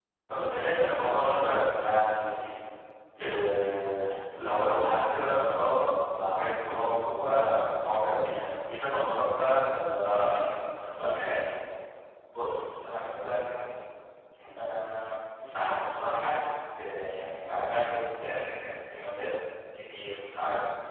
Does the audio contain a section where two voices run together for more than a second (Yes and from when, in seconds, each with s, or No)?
No